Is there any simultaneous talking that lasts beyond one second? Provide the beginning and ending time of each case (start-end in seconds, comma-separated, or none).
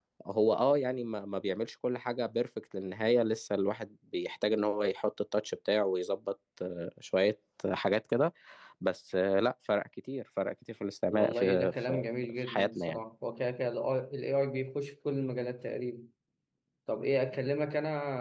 11.1-13.0